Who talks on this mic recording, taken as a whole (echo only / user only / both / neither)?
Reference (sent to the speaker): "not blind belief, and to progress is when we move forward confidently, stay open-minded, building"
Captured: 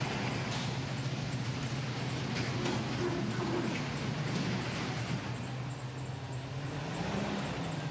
neither